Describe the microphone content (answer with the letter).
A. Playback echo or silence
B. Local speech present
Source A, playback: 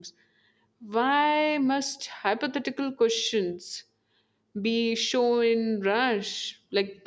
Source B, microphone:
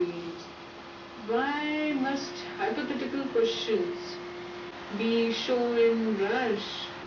A